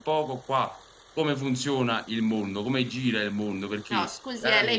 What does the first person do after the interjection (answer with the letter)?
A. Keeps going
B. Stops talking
B